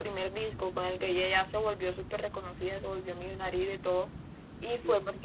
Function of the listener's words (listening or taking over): listening